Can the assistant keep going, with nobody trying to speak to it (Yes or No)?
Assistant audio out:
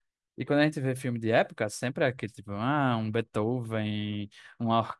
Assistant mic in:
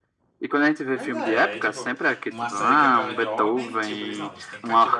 No